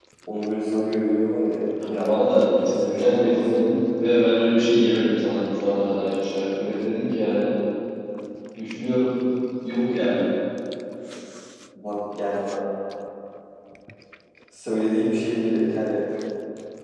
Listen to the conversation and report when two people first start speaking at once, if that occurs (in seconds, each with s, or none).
1.8 s